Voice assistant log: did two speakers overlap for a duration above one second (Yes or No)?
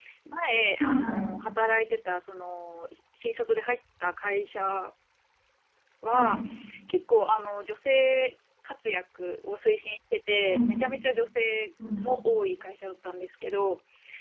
No